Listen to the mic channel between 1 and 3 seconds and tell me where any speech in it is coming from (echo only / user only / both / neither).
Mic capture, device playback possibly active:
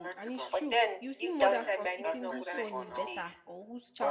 both